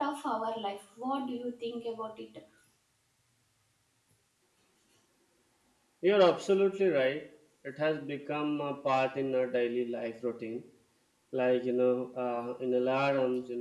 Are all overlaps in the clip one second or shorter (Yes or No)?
Yes